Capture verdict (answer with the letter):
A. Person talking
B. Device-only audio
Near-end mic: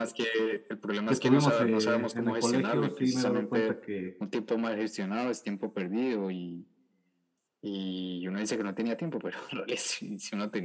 A